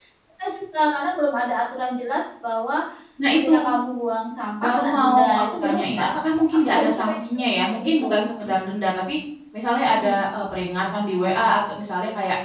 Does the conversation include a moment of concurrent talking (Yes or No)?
Yes